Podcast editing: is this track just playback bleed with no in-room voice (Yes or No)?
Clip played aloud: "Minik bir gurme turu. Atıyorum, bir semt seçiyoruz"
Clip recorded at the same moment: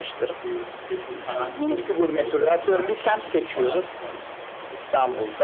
No